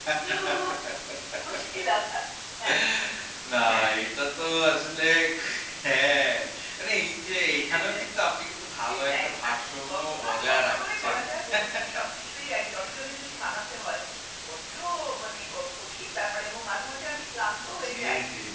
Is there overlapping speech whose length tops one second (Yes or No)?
Yes